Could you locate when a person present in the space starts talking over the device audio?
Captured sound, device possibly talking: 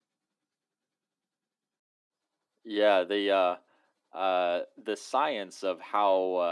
none

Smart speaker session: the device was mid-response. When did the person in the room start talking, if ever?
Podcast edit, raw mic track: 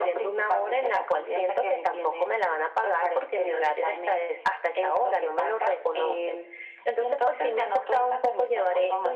none

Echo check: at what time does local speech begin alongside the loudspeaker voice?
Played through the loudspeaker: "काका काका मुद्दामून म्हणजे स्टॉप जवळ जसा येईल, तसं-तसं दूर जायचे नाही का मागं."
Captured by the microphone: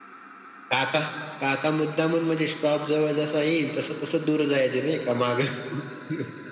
none

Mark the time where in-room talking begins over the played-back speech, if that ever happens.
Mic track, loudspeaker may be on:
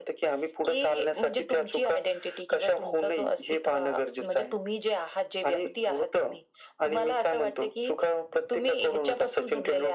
none

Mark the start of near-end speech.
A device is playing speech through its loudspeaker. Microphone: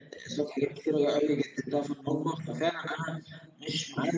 none

